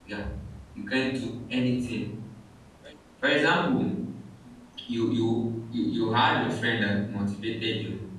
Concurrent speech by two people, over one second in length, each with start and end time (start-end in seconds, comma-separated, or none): none